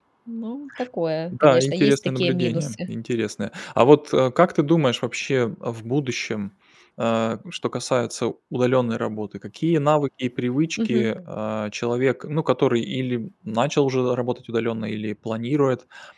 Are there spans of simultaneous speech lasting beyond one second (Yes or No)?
Yes